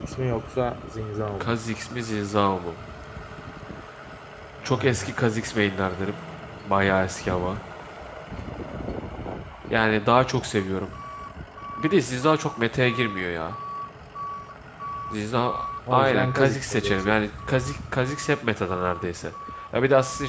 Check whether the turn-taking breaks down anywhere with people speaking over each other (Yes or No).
Yes